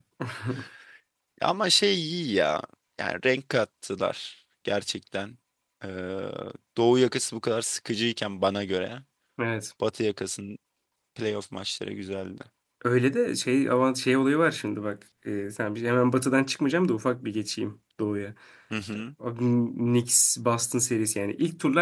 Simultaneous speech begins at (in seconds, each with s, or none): none